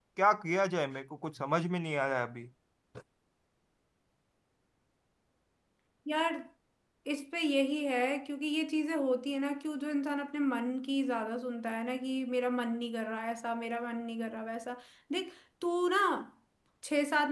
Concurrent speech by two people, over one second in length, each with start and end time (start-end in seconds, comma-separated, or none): none